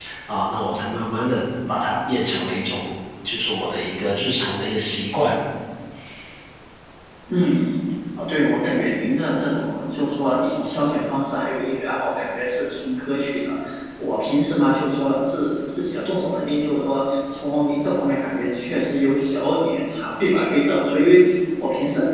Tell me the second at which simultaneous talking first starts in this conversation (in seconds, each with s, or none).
none